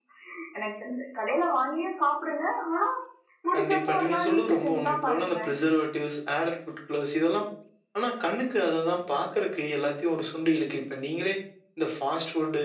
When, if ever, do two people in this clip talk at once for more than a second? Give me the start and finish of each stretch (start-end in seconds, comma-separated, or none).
3.5-5.5